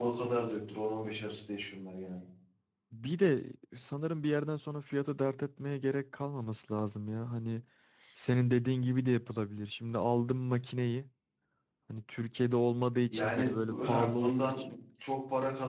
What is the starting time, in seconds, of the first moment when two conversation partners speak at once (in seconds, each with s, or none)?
13.1 s